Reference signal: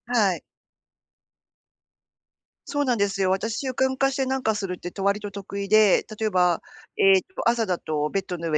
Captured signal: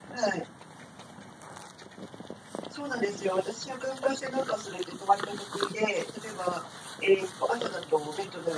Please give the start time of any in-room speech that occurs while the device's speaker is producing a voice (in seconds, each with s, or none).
none